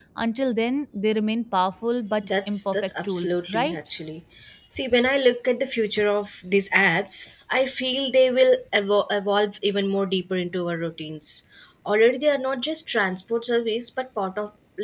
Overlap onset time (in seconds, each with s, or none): 2.2 s